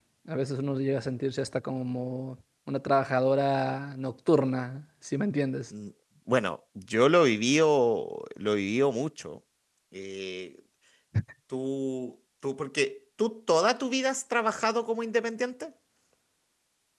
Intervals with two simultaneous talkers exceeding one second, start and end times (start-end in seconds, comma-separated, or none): none